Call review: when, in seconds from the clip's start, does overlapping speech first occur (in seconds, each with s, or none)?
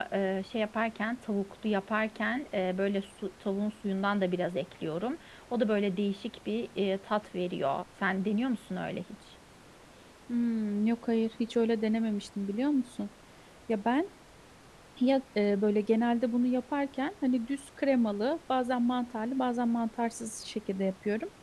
none